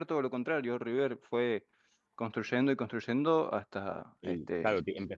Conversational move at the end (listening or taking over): taking over